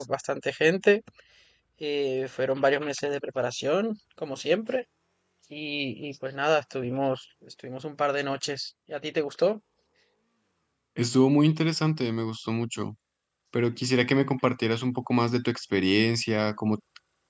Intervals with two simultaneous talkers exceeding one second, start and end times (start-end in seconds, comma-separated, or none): none